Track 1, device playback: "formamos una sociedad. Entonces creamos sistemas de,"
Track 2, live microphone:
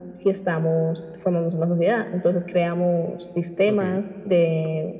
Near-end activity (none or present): present